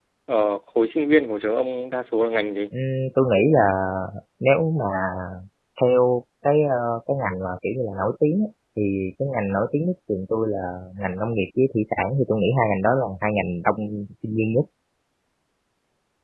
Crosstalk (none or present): none